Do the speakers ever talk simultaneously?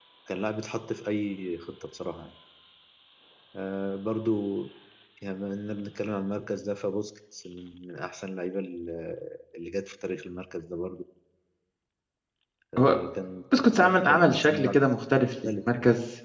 Yes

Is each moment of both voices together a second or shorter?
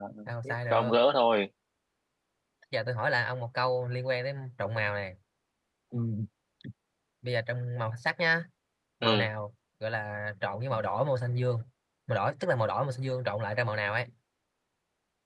Yes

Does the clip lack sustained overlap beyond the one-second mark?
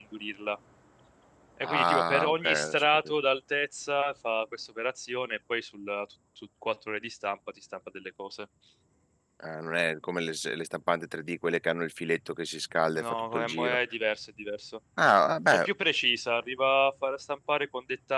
No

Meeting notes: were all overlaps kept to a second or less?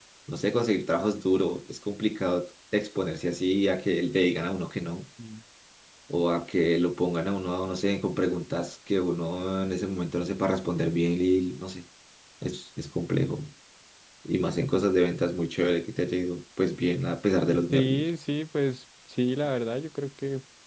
Yes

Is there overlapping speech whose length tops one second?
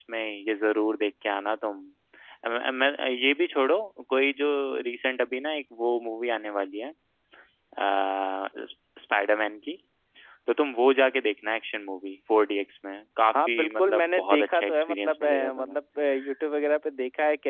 Yes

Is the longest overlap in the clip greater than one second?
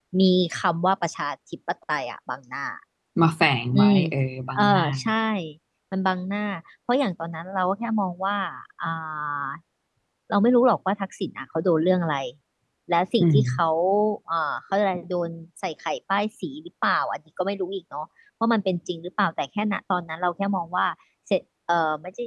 No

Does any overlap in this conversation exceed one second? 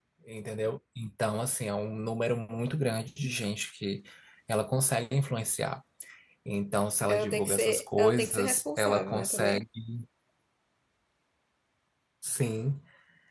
Yes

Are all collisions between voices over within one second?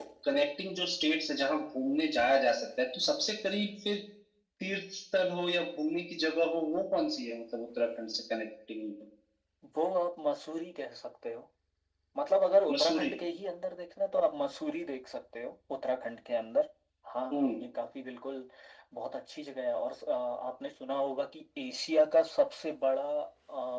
Yes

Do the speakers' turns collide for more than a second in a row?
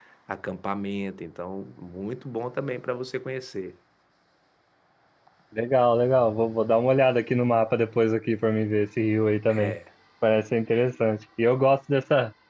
No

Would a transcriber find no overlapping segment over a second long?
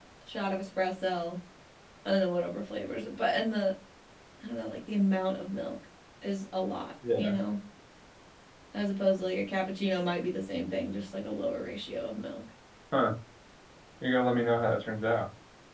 Yes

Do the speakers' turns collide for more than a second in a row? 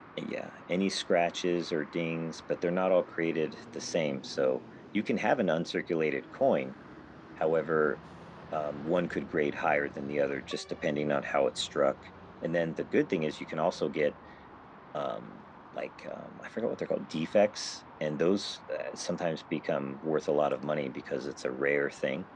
No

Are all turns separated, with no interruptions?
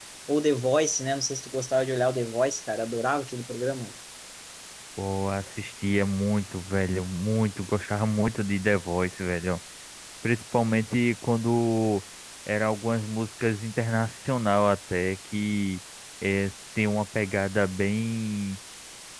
Yes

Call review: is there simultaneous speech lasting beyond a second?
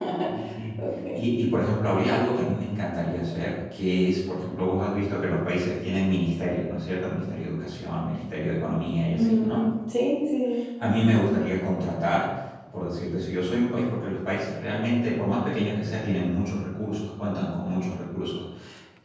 No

